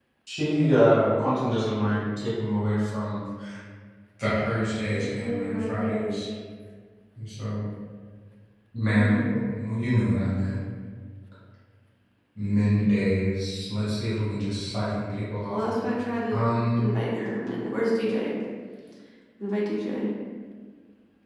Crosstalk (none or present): present